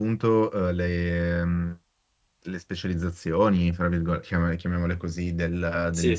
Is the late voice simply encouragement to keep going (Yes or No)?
Yes